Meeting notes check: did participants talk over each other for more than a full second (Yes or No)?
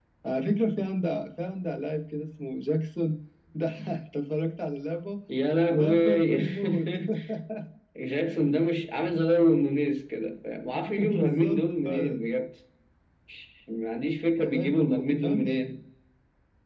Yes